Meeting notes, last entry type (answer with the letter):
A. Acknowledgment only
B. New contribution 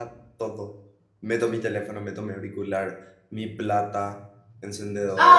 B